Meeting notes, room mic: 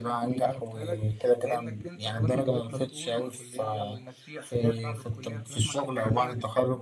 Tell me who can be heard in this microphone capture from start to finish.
echo only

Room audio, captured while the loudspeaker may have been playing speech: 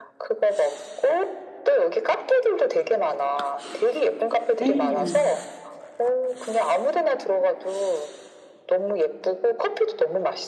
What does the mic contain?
both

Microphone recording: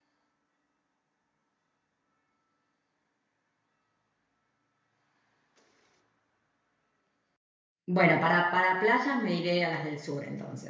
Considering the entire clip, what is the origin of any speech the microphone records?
user only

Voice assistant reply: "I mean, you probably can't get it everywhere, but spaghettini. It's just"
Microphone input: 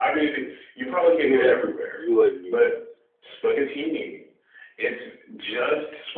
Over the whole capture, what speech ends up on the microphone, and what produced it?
both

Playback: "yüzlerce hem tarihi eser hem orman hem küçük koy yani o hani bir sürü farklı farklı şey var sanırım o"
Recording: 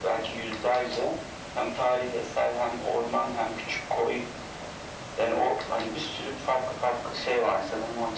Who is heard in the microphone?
echo only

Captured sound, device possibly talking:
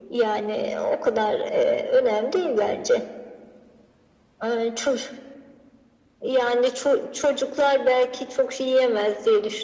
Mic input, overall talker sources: echo only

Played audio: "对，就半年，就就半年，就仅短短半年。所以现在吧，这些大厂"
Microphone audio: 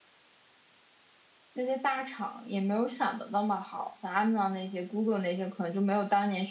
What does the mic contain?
user only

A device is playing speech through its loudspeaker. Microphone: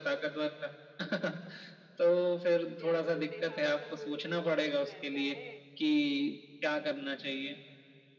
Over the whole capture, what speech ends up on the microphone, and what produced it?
both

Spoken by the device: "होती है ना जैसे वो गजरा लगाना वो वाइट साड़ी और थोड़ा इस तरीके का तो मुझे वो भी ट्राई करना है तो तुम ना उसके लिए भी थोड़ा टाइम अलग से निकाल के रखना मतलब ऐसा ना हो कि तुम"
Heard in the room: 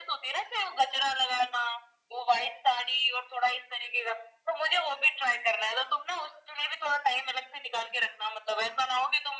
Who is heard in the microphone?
echo only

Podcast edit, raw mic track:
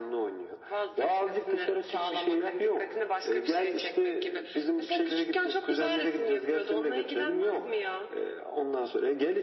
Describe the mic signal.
echo only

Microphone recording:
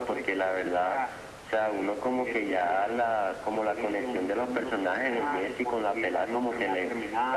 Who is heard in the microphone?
echo only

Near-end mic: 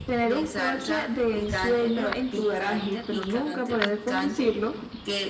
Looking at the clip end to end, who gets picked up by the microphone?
echo only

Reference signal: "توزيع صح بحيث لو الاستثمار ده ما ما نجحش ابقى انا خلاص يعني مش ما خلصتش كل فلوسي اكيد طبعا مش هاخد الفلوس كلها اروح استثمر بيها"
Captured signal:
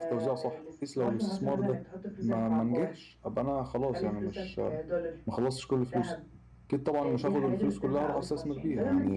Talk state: both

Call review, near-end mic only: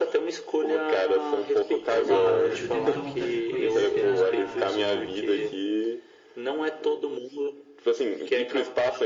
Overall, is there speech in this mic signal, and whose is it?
both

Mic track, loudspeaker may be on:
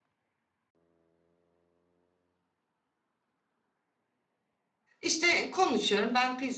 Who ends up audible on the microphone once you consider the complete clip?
user only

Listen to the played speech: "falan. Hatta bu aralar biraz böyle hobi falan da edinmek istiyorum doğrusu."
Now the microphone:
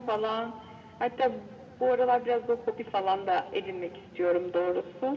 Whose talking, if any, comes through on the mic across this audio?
echo only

